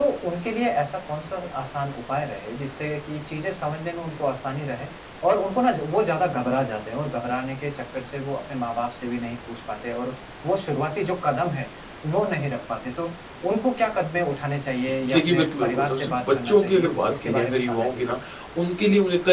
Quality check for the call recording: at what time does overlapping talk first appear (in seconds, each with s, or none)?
15.0 s